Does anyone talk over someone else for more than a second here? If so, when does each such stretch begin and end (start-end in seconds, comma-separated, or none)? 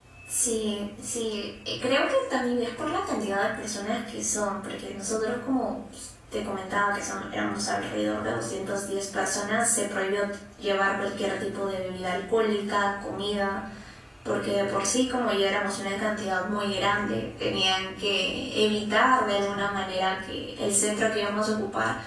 none